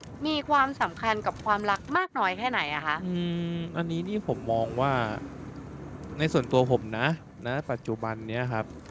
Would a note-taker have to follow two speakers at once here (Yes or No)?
No